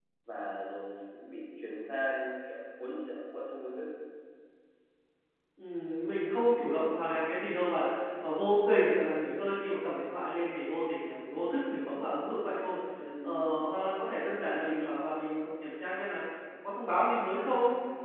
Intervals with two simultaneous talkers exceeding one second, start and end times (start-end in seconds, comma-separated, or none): none